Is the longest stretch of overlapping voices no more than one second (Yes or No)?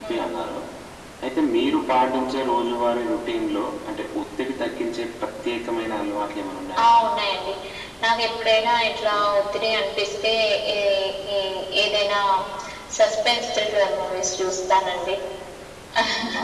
Yes